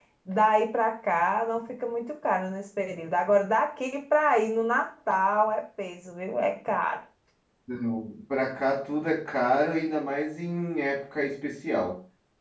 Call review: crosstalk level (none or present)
none